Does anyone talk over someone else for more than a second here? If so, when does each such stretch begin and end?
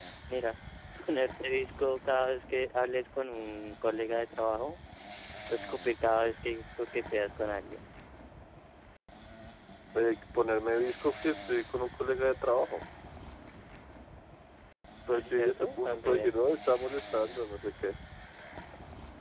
15.1-16.4

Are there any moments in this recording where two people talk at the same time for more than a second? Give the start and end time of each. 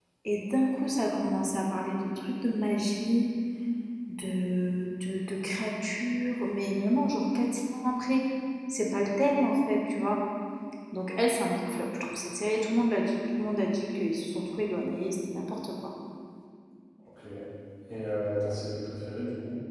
none

